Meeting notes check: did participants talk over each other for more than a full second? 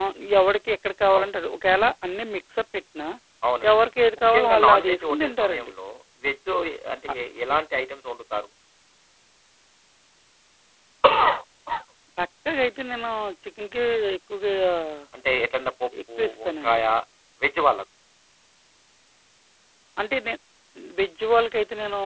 Yes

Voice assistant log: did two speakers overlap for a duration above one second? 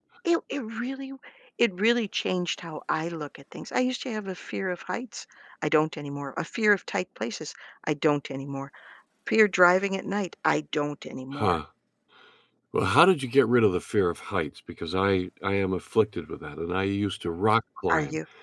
No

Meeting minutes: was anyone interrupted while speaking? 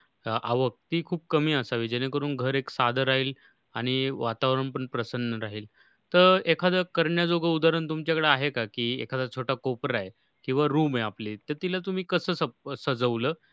No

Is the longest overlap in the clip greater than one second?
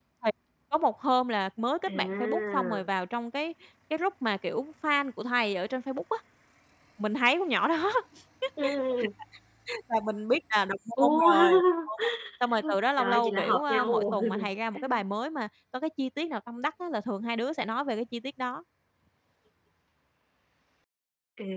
Yes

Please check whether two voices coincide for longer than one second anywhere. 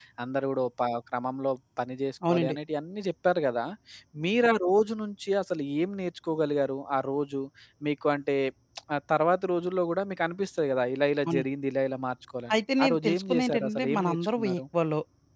Yes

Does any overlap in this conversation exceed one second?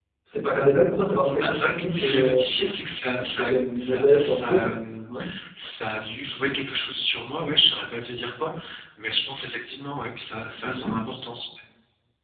Yes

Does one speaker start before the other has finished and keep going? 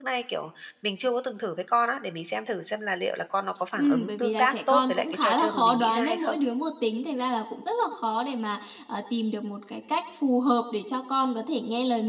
Yes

